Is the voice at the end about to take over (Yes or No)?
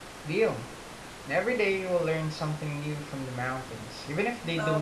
Yes